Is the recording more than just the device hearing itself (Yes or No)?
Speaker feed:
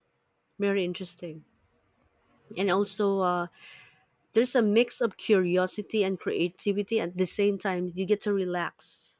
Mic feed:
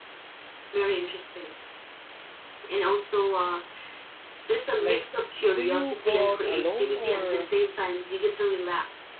Yes